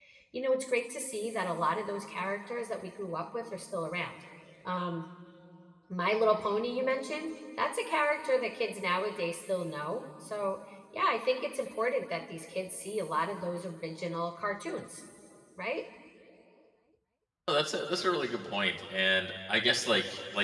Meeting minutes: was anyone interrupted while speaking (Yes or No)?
No